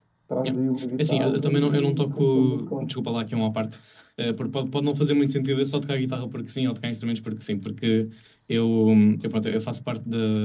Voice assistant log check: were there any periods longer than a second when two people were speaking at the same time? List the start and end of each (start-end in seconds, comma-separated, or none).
1.0-2.9